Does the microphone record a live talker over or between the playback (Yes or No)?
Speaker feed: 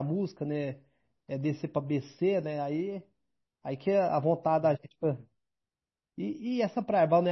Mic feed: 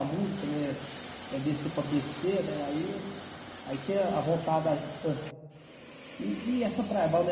No